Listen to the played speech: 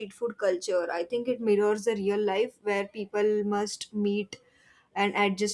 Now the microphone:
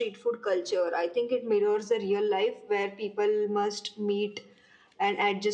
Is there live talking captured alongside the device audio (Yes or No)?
No